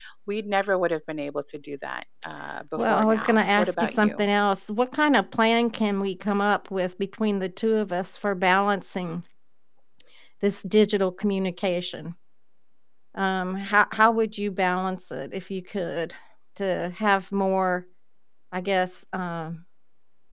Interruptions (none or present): present